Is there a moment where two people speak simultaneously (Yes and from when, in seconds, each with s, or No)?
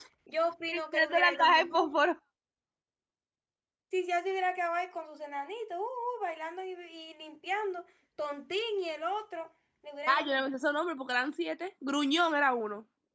Yes, from 0.7 s